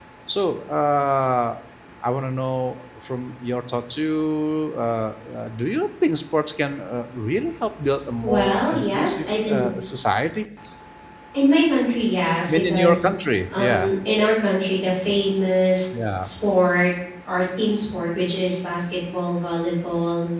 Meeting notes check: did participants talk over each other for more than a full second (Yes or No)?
Yes